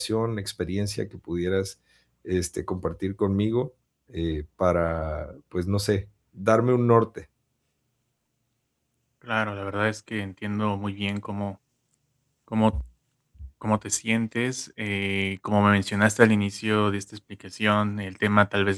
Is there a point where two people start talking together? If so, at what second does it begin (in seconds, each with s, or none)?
none